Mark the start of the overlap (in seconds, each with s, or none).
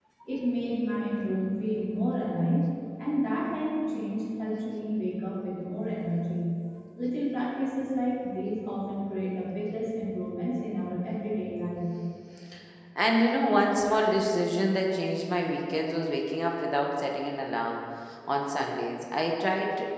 none